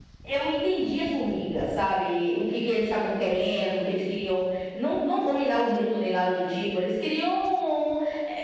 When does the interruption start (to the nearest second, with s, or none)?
none